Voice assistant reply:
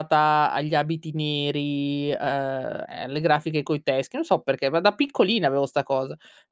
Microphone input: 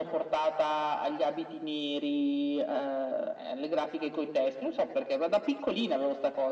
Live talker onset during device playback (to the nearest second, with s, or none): none